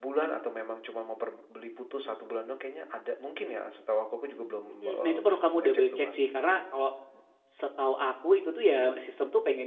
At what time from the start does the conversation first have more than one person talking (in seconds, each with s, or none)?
4.8 s